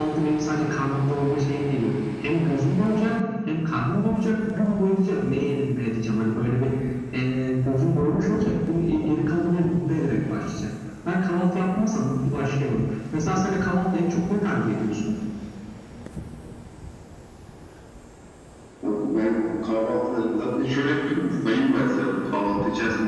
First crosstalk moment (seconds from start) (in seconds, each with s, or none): none